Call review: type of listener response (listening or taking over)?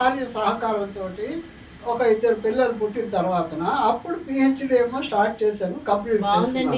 taking over